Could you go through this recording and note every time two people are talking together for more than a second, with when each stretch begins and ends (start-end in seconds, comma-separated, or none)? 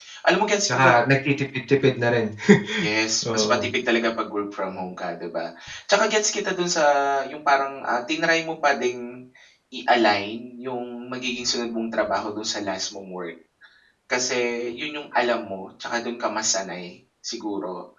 none